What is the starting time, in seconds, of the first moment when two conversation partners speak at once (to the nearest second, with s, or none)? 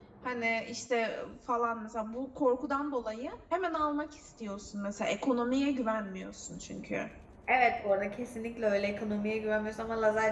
none